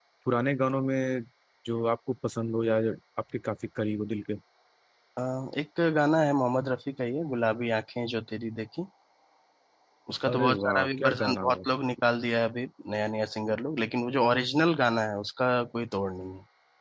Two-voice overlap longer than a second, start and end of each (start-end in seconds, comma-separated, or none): 10.3-11.6